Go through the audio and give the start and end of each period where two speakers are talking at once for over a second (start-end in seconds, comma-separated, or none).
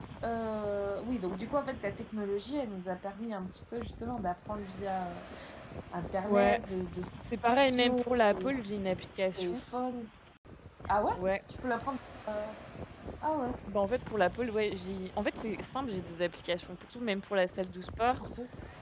none